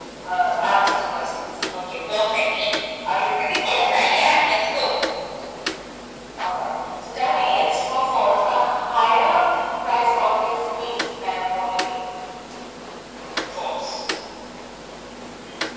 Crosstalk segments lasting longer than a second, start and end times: none

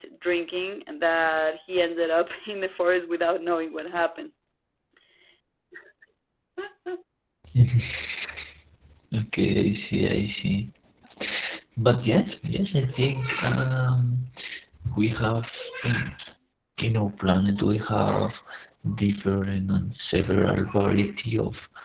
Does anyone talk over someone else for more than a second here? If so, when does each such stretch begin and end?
none

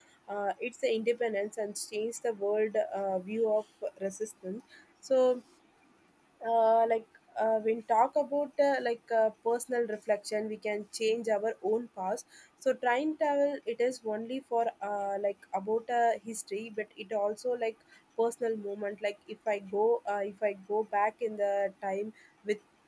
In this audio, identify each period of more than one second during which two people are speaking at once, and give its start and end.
none

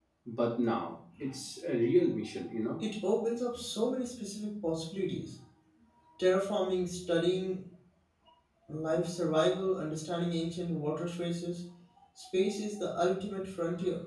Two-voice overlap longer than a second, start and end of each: none

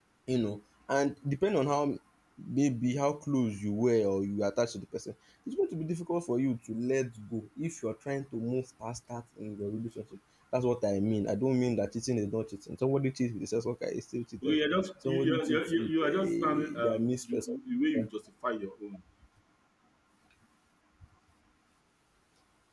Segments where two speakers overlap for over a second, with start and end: 15.1-17.5

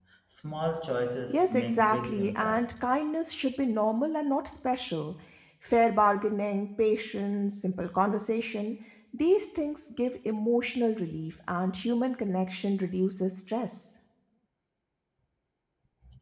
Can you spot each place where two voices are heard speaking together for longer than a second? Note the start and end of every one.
1.3-2.6

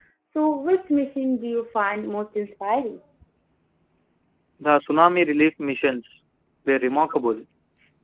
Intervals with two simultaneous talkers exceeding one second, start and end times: none

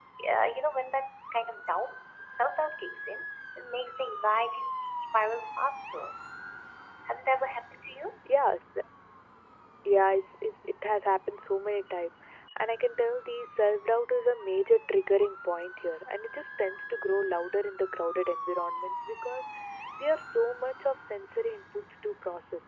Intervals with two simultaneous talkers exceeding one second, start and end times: none

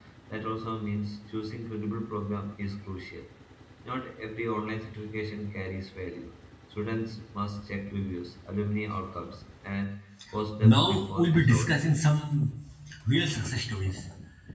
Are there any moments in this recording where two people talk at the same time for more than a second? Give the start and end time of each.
10.6-11.8

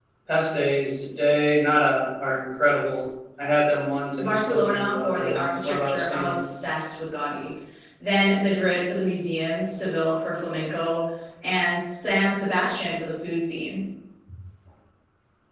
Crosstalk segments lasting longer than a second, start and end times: 4.2-6.4

